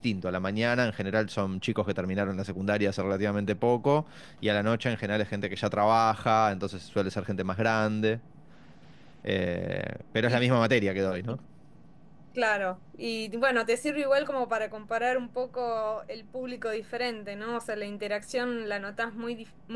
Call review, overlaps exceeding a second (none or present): none